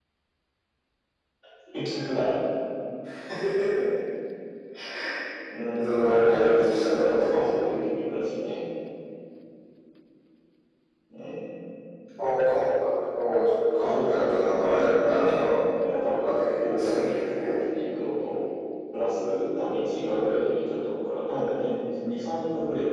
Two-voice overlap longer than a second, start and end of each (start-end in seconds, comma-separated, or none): 5.8-7.6, 13.8-15.6, 16.2-17.6